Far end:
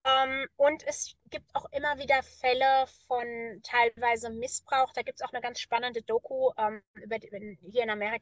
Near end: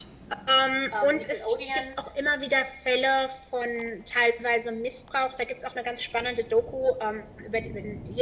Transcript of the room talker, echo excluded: ähm, Nickelodeon

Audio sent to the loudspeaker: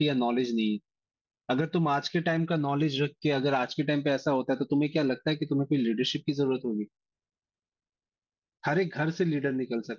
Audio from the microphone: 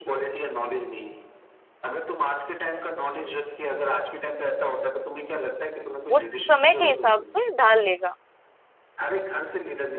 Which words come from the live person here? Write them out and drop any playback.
उस समय के हिसाब से ढाल लेगा

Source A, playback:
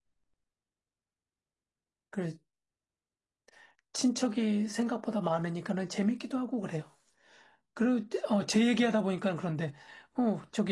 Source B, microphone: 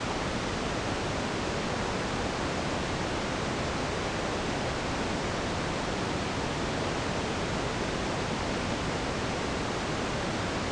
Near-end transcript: none

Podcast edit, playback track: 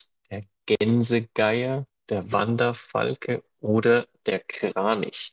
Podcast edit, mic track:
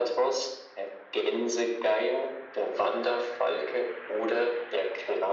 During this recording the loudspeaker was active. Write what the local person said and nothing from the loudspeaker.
none

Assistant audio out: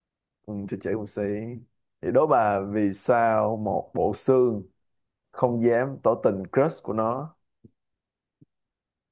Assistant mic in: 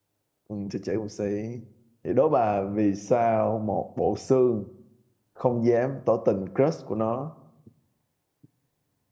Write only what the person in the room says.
none

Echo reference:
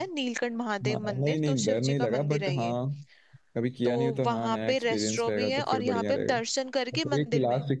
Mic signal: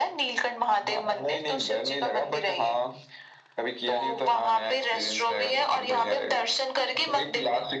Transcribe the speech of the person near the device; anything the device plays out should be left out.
none

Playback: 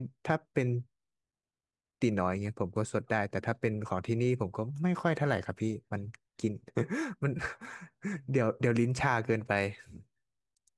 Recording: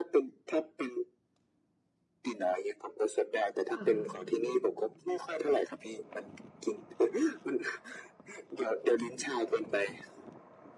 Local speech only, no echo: ค่ะ

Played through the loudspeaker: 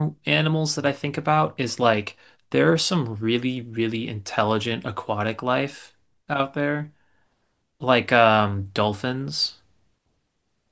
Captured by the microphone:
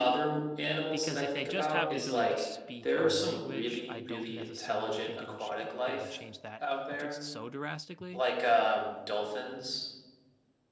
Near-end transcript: Because if they just have the ability to speak our language, I don't necessarily think it'll ch it would change that just so drastically.

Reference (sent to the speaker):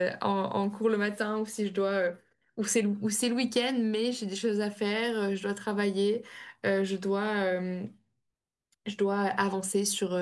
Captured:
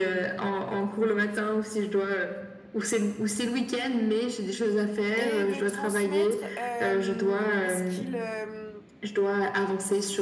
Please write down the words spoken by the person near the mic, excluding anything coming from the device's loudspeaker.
et de transmettre euh, ce qu'ils euh,

